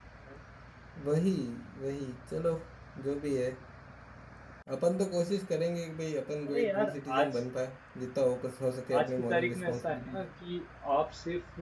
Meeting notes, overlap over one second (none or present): present